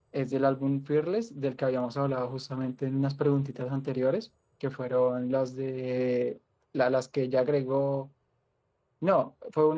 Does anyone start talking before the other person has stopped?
No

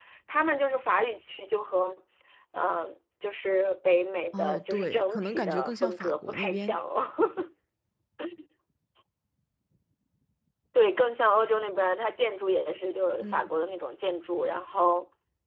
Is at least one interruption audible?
Yes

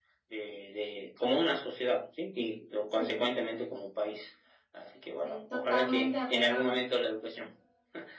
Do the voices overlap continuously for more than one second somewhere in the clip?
Yes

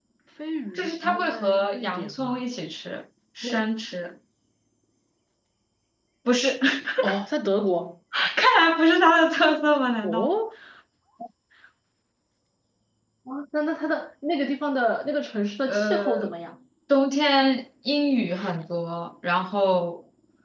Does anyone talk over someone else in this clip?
Yes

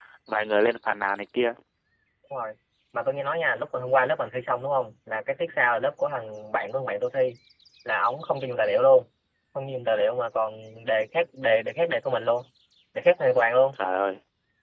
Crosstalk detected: No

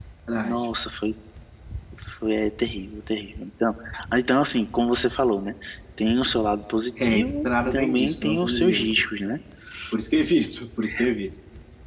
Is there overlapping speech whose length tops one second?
Yes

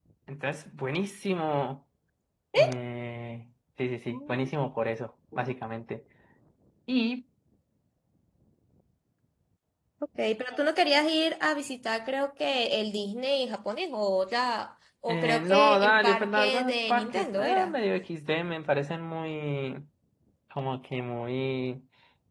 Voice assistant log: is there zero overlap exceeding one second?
No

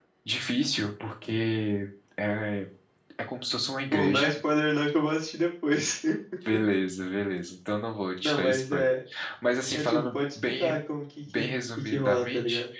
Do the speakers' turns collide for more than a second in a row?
Yes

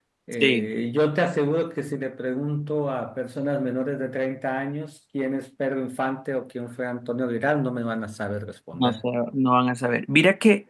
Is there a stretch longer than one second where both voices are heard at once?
No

